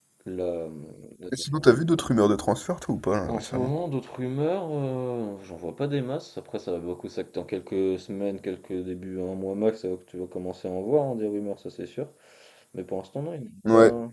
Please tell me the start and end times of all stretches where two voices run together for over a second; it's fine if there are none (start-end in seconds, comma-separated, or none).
none